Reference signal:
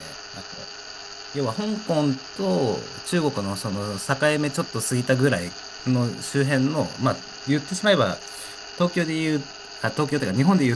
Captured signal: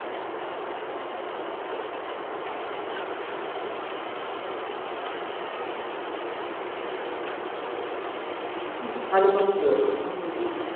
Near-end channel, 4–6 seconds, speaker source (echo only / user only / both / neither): neither